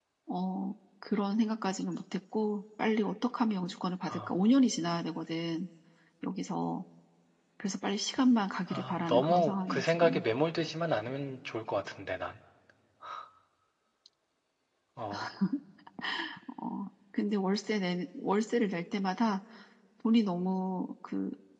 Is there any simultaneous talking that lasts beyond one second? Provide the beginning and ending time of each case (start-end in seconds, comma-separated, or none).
8.7-10.2